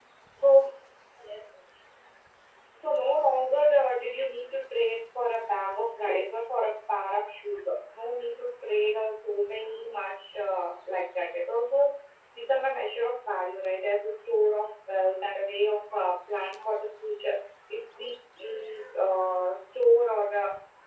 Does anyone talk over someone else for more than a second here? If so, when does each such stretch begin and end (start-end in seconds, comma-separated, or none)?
none